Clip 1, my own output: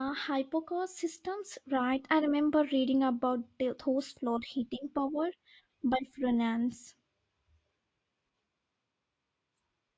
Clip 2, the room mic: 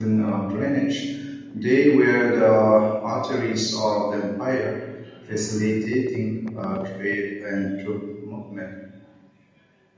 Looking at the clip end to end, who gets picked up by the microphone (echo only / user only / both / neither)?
user only